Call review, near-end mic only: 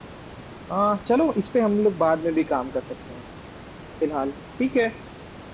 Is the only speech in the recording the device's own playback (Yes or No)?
Yes